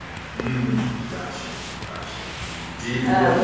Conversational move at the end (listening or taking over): listening